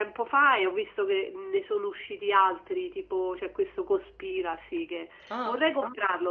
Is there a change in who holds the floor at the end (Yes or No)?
No